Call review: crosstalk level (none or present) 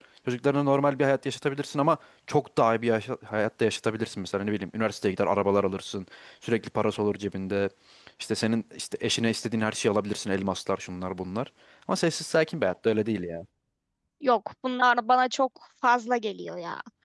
none